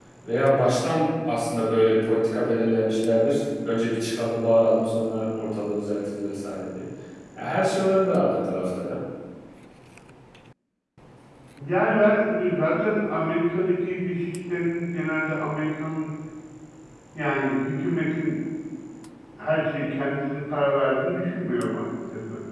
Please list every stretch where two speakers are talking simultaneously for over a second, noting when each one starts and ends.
none

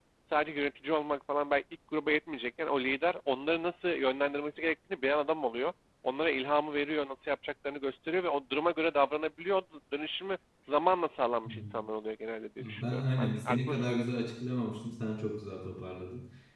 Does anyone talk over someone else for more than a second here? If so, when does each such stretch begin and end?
12.6-13.9

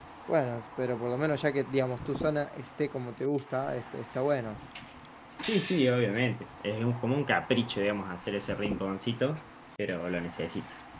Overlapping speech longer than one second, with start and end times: none

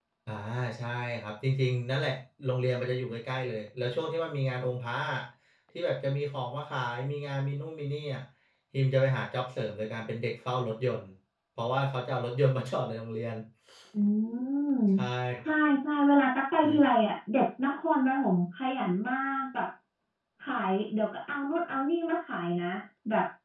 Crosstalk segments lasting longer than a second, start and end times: none

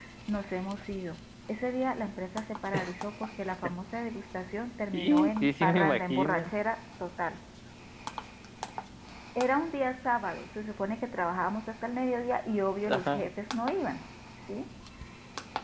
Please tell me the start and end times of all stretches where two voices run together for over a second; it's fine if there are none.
4.9-6.5

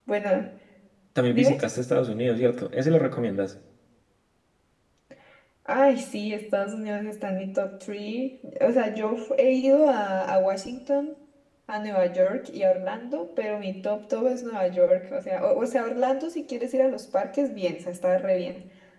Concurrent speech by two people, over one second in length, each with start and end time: none

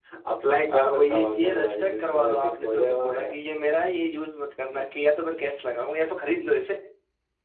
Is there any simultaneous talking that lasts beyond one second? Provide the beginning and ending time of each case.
0.7-3.4

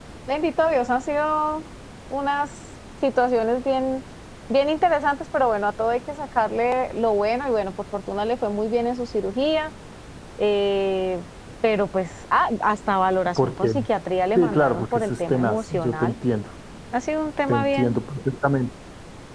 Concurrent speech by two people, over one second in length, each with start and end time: 14.3-16.1

